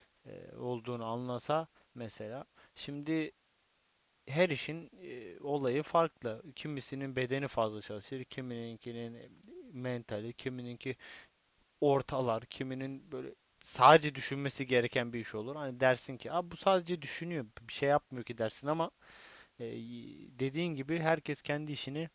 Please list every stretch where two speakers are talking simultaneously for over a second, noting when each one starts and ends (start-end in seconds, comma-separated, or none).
none